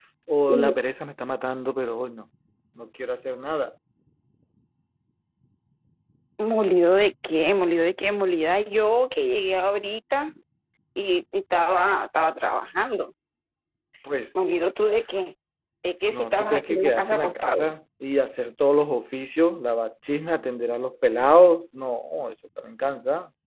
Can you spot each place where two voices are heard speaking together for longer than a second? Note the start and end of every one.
16.1-17.7

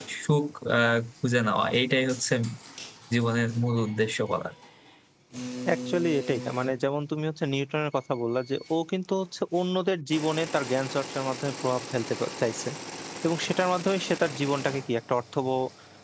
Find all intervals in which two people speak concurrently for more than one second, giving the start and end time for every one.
none

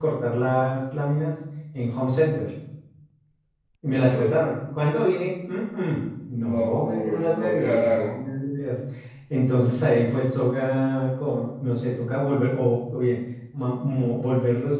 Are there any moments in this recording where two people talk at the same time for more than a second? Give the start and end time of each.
6.4-8.1

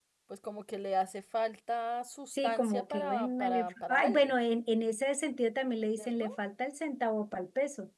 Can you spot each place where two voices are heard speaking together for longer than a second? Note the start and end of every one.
2.3-4.3

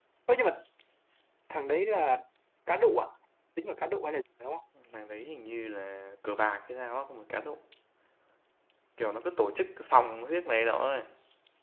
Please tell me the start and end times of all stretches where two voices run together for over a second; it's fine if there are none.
none

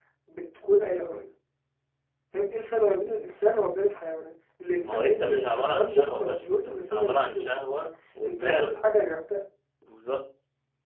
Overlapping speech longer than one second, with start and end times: 4.8-7.8

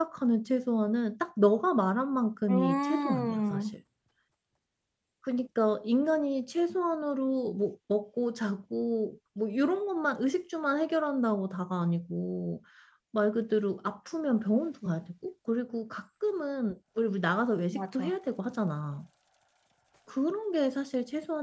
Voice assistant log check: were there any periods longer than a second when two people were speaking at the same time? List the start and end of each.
2.5-3.8

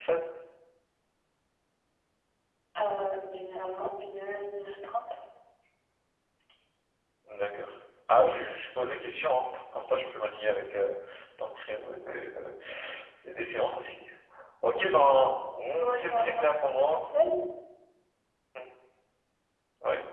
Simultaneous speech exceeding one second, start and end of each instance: 15.8-17.0

